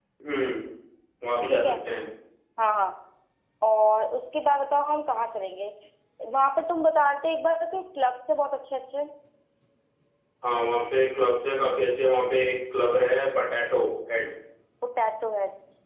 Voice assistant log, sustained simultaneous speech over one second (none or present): none